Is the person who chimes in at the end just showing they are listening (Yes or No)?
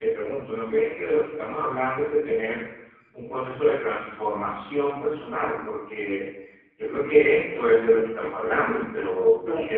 No